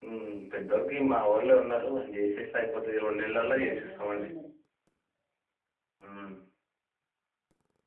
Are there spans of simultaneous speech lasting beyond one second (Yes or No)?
Yes